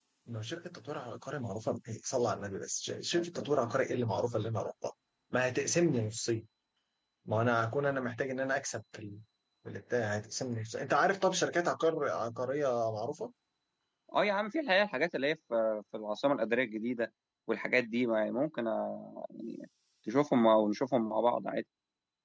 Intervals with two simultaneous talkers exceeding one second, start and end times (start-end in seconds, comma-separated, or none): none